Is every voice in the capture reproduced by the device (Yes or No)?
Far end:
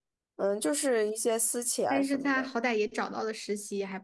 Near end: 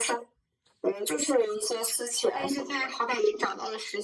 Yes